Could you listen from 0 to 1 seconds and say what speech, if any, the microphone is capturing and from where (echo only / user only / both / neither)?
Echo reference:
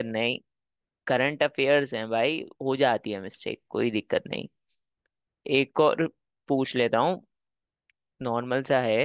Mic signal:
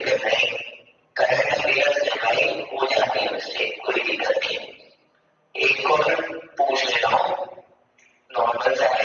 echo only